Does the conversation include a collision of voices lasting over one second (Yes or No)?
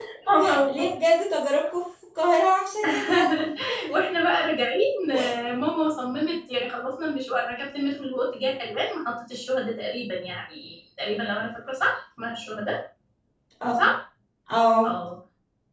No